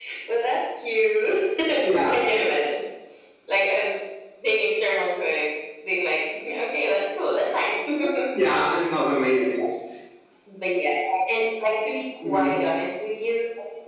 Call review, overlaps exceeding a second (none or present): none